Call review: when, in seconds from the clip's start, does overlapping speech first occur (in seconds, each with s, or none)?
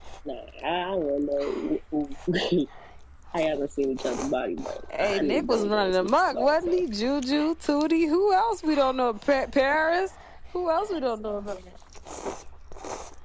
4.9 s